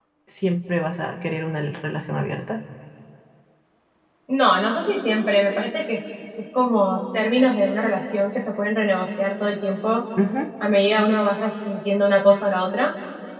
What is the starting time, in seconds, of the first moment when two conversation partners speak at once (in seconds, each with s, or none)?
none